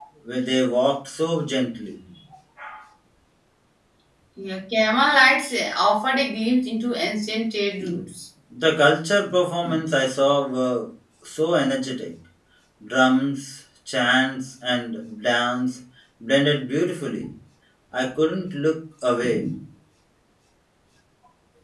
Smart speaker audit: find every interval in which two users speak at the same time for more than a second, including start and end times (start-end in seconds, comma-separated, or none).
none